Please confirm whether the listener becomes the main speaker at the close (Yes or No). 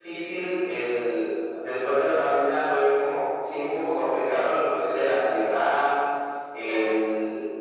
No